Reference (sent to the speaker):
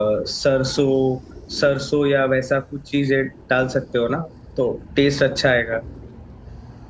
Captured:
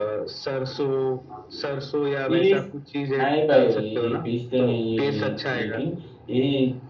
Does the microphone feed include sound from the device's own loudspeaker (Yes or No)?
Yes